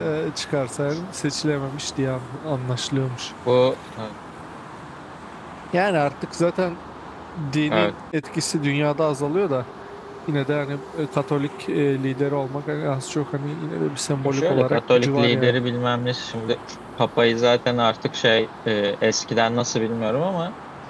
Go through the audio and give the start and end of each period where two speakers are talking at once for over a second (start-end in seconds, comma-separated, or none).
14.2-15.6